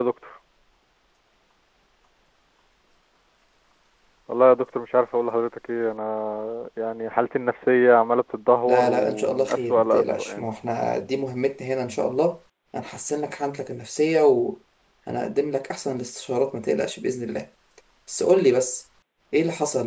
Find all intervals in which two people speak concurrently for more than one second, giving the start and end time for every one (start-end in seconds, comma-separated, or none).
8.7-10.4